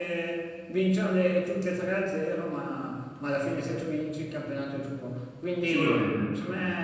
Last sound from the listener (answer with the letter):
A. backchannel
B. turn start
A